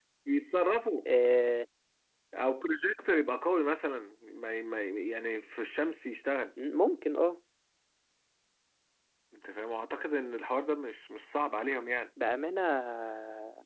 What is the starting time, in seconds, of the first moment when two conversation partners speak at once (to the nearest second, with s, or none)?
none